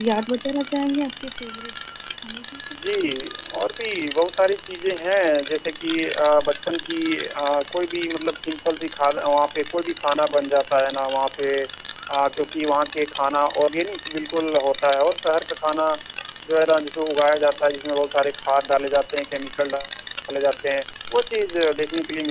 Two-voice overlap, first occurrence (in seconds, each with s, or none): none